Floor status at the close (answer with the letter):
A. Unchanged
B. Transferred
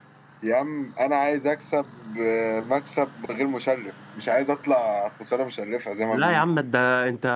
B